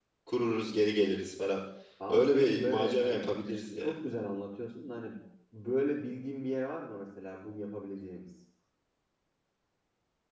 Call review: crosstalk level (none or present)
present